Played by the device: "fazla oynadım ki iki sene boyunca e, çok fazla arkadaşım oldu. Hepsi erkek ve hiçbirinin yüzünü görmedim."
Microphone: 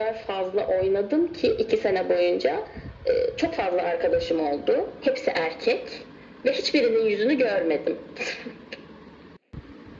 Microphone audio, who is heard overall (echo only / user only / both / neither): echo only